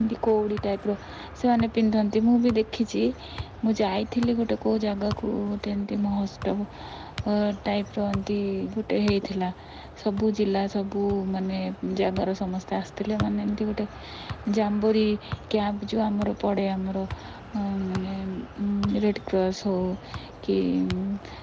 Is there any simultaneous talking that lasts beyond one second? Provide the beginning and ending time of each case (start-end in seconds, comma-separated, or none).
none